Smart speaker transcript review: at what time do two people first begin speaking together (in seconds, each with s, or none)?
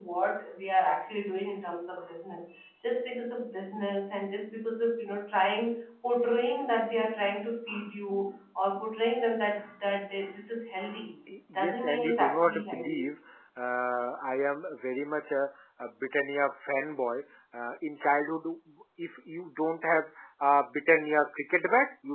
11.6 s